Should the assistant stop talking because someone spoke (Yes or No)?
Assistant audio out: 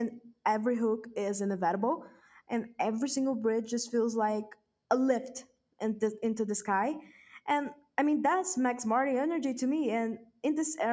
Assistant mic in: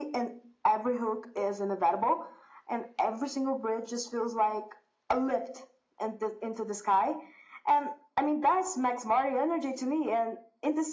No